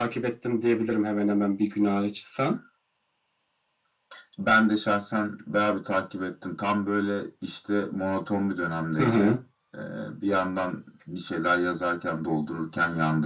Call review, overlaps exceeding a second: none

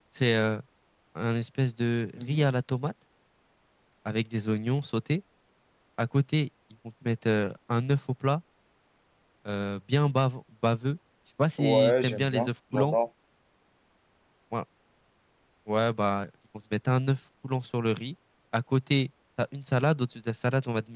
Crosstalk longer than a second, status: present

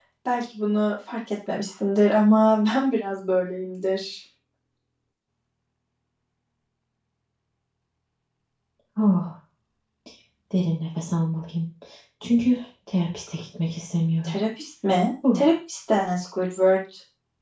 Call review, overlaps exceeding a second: none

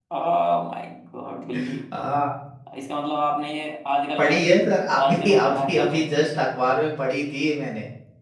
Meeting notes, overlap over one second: present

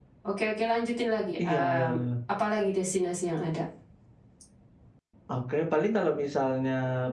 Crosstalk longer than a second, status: none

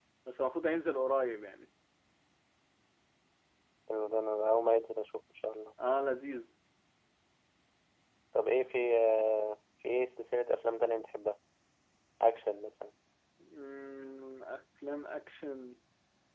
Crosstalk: none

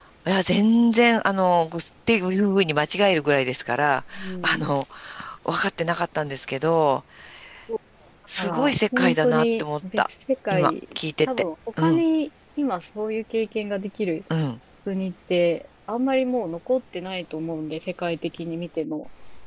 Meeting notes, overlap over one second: present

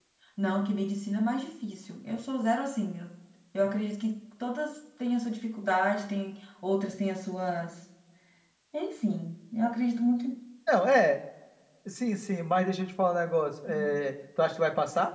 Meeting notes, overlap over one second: none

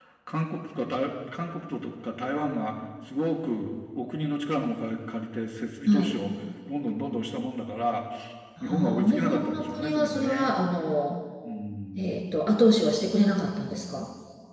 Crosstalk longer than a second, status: present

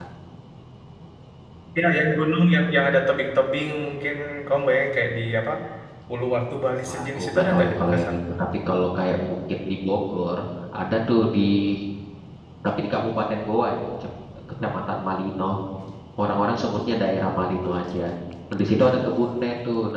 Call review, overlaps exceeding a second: present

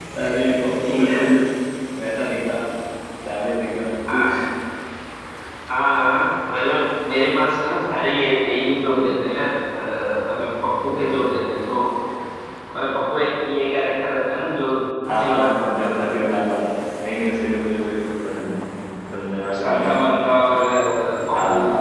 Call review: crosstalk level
present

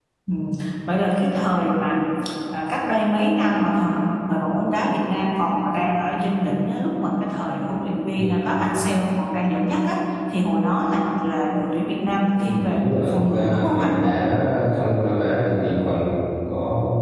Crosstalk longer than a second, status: present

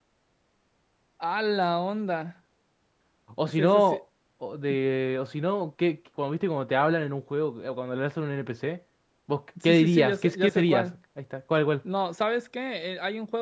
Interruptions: present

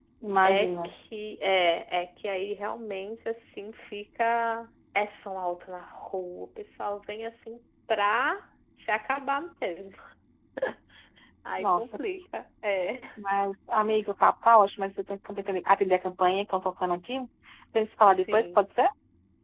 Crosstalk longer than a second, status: none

